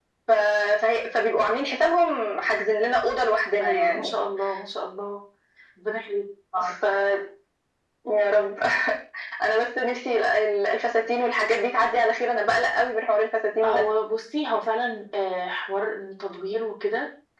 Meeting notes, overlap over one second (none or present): none